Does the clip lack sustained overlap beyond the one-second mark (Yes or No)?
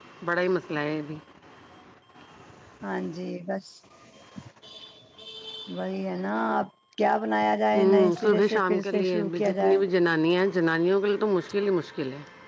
No